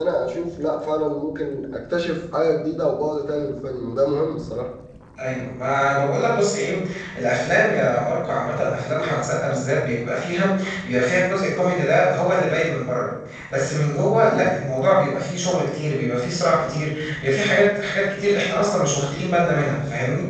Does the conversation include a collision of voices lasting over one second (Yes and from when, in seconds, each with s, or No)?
No